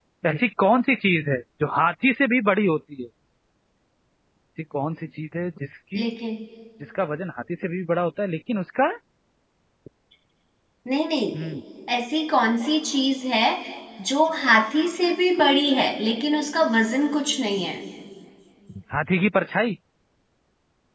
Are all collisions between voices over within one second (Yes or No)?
Yes